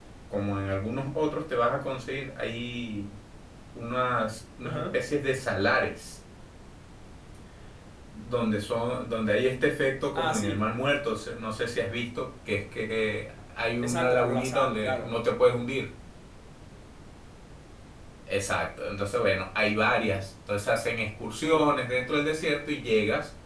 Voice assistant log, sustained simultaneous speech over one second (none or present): present